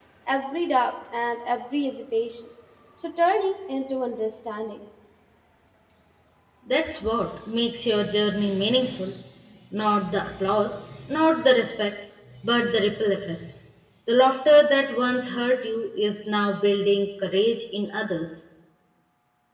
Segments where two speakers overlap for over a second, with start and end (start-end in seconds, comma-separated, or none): none